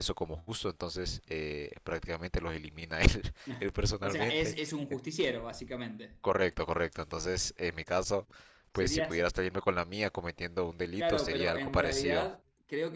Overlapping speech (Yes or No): Yes